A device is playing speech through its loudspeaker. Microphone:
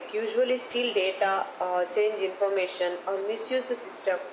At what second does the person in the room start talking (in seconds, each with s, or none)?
none